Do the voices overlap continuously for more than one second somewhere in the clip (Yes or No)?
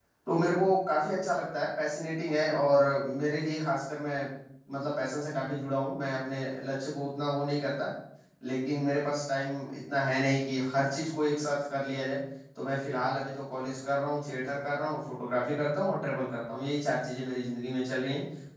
No